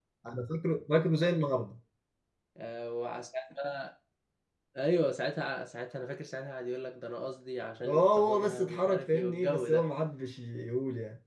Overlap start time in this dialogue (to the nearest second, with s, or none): 8 s